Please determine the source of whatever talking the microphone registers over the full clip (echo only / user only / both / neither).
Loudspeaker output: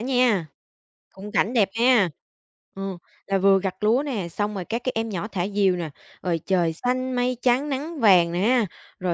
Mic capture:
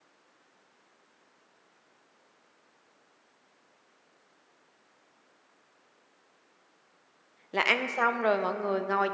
user only